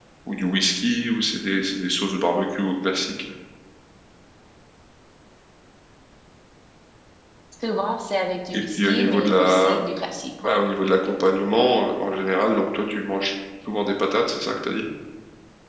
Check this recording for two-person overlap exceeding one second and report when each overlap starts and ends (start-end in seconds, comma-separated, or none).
8.5-9.8